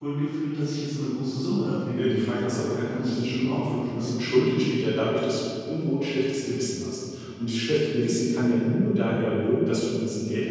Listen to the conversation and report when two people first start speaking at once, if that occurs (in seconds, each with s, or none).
2.0 s